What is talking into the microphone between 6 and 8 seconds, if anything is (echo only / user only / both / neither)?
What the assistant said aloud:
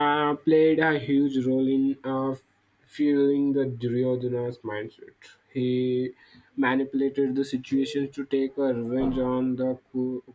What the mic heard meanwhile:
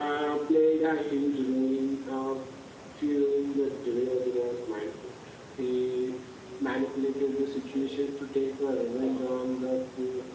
echo only